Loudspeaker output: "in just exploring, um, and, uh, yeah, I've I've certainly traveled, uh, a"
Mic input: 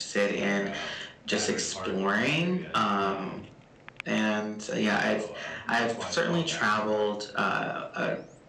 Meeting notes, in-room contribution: present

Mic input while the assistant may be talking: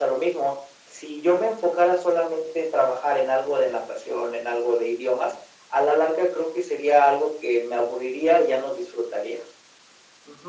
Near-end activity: none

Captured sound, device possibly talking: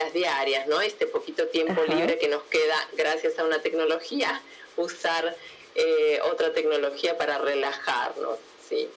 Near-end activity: present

